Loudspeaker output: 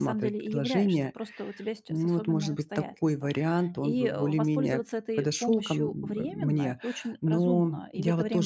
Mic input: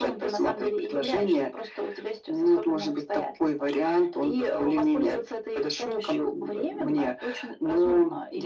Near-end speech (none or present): none